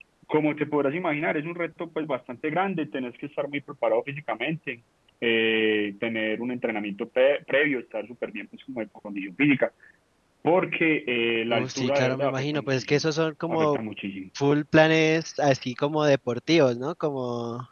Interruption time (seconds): 11 s

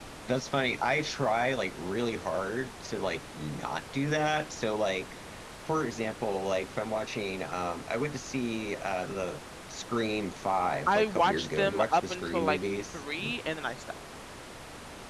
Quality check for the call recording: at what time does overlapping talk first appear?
11 s

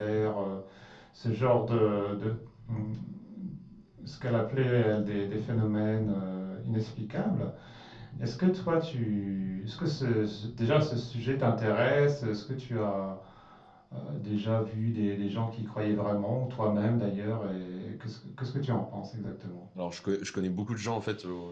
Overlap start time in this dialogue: none

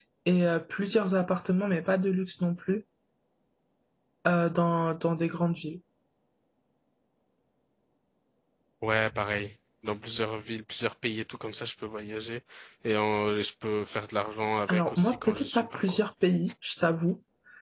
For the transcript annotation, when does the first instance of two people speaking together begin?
15 s

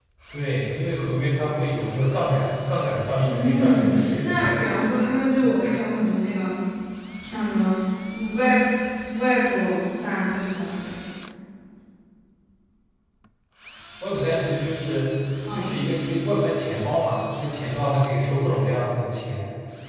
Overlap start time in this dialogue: 3 s

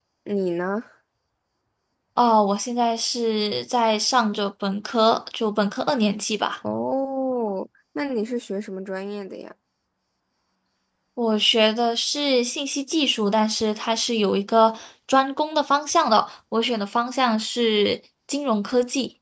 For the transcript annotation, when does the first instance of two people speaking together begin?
none

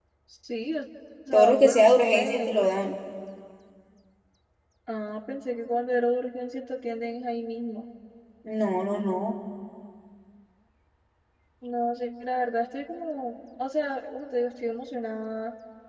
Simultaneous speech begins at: 1 s

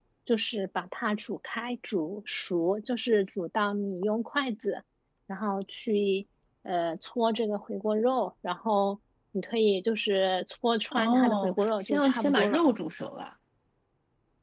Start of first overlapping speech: 11 s

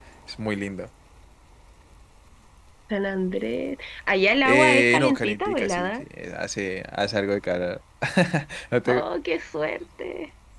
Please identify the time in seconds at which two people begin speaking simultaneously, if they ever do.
4 s

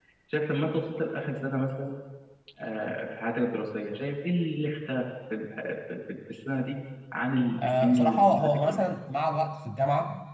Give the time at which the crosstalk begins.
8 s

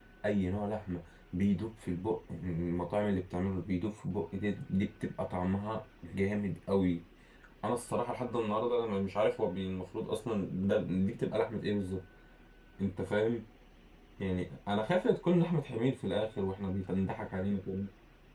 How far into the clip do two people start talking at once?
none

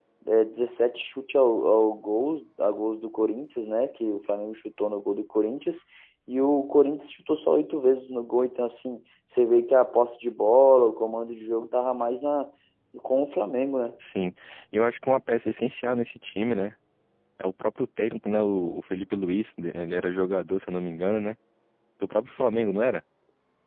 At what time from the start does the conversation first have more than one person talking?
none

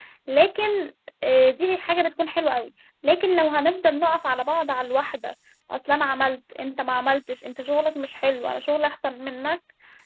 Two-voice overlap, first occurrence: none

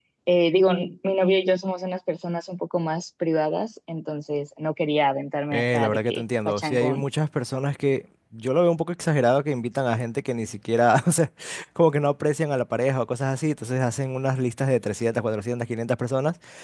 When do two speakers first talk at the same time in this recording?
6 s

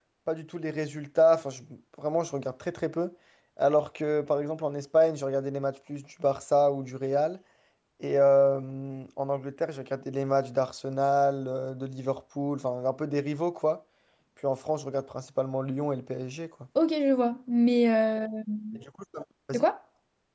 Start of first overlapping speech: none

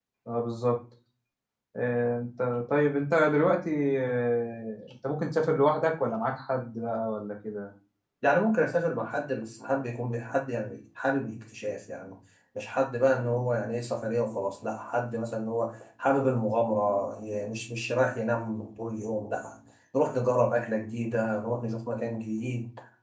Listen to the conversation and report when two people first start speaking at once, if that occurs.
none

